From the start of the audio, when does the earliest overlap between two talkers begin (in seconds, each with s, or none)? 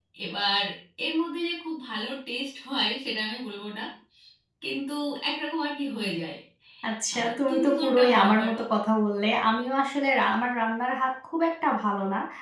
7.1 s